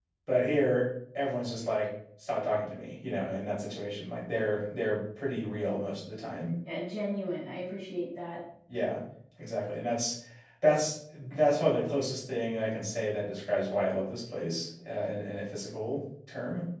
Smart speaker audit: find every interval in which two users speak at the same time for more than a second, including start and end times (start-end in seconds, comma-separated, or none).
none